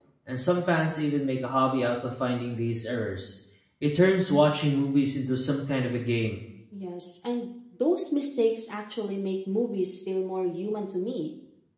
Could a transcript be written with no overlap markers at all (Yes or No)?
Yes